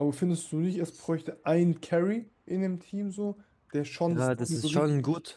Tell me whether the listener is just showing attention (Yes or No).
No